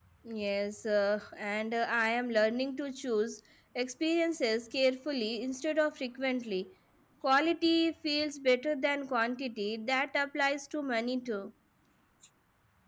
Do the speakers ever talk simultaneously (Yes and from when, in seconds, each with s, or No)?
No